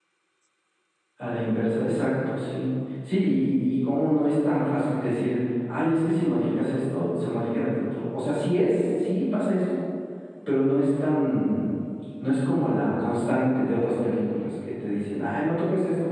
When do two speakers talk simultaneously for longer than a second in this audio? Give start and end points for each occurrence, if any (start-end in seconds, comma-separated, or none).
none